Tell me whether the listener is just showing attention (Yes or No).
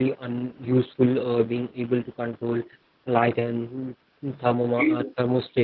Yes